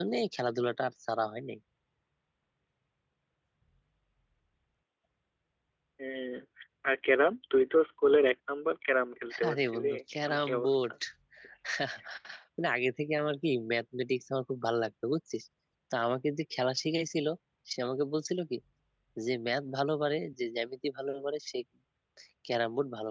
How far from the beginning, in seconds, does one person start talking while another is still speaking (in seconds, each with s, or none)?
9.3 s